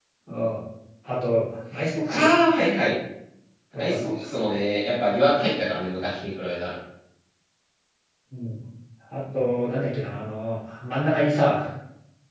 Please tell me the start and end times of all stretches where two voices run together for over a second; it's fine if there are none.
none

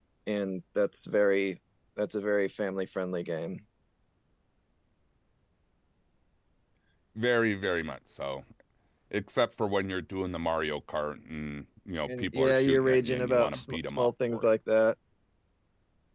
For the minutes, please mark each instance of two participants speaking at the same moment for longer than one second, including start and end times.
12.1-14.5

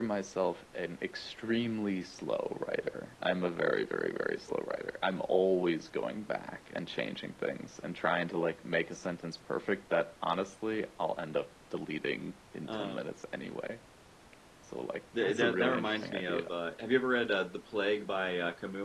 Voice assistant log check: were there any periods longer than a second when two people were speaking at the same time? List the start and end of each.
15.2-16.5

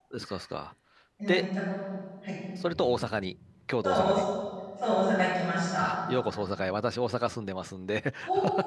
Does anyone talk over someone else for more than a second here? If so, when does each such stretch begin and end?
none

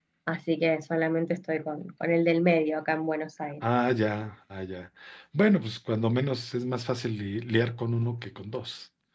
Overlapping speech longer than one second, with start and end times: none

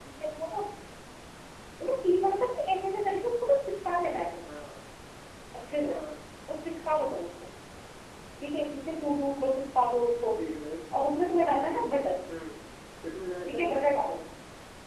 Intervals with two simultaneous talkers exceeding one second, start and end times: none

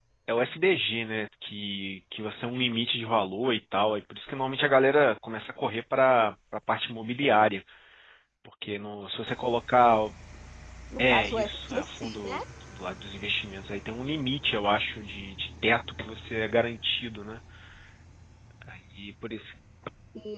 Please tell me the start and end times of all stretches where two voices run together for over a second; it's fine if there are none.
11.0-12.4

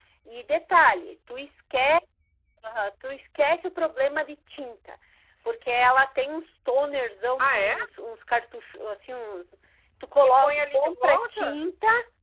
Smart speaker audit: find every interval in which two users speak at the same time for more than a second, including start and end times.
10.2-11.6

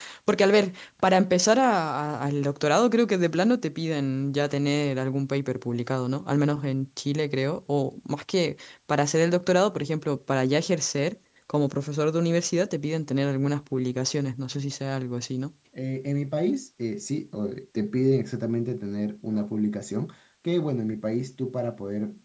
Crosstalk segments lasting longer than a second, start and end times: none

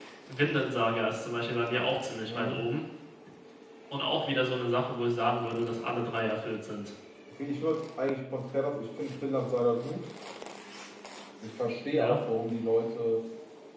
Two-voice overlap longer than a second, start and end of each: none

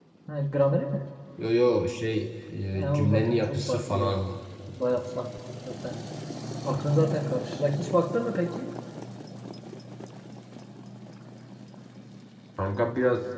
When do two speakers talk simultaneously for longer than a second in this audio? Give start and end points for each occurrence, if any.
2.7-4.2

